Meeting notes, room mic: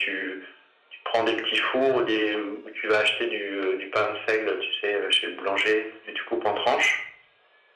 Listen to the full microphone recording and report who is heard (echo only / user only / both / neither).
echo only